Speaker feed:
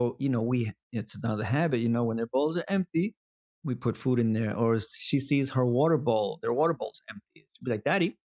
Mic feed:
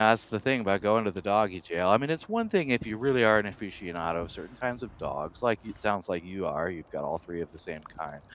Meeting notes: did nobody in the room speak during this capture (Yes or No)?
No